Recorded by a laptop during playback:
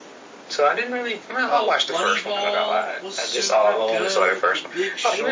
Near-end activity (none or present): present